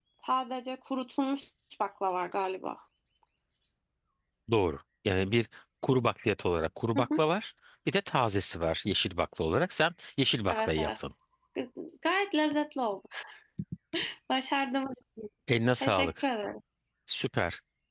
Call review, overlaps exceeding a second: none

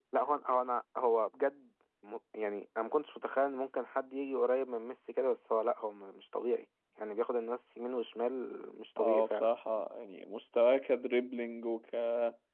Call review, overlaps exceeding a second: none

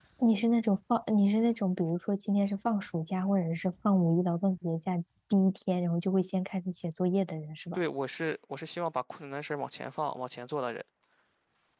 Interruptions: none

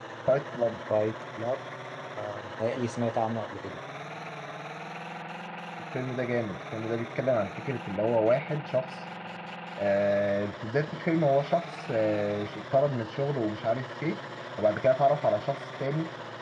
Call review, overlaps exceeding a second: none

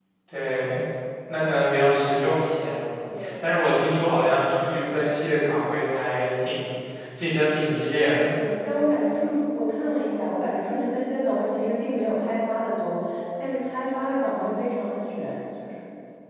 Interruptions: none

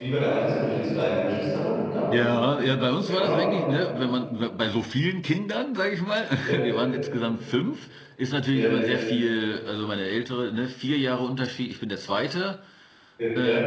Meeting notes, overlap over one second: none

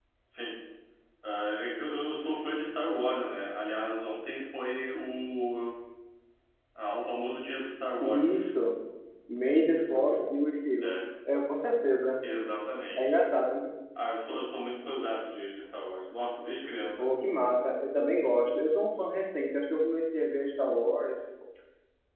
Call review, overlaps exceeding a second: none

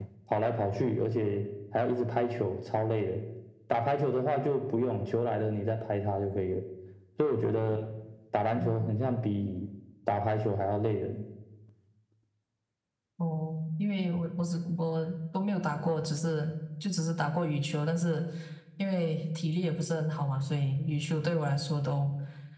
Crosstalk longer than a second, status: none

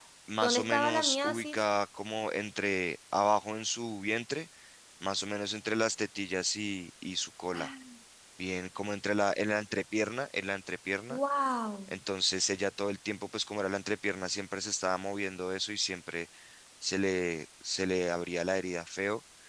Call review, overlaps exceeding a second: present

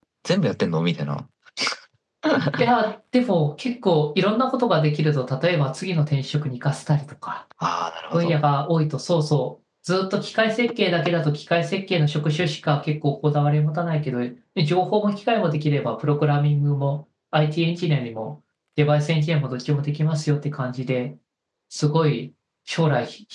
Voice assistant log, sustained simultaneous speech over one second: none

